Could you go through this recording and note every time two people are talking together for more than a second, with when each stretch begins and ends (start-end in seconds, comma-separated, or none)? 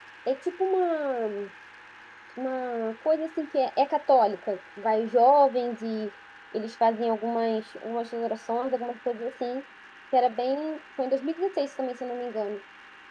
none